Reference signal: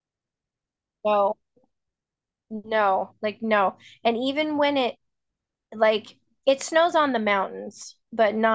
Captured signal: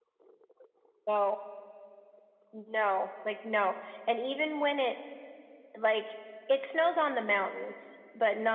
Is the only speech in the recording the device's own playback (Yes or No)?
Yes